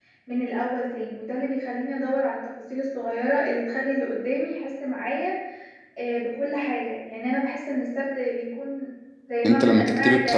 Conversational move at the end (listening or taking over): taking over